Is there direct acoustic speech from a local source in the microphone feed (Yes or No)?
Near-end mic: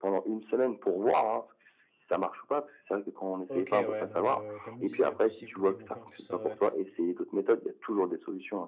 Yes